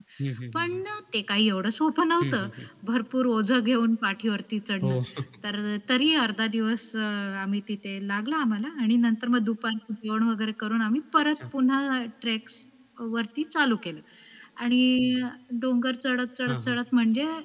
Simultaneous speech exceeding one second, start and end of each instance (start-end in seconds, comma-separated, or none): none